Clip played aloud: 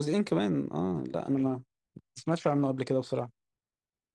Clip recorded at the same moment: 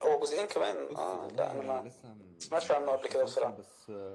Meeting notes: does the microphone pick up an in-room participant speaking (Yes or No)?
Yes